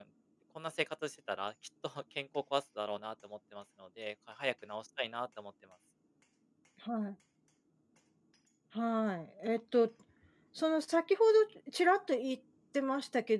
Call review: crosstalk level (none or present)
none